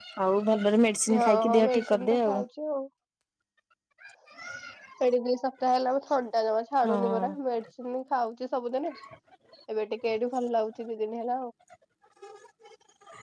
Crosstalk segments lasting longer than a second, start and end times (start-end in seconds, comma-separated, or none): 1.1-2.4